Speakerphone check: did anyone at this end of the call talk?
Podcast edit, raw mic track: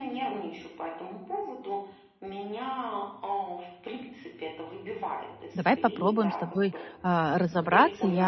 Yes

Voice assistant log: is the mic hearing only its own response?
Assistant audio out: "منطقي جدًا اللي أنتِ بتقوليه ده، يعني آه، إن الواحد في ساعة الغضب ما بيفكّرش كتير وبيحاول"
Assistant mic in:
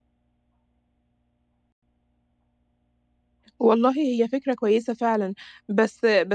No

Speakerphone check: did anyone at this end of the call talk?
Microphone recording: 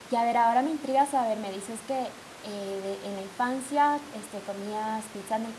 Yes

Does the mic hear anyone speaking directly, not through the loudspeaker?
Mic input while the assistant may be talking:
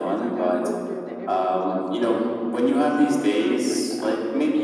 Yes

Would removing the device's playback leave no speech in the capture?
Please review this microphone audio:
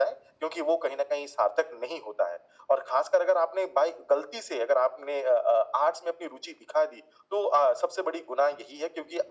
Yes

